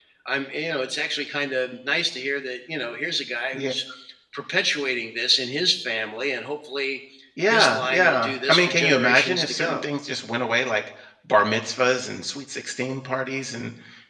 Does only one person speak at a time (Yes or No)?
No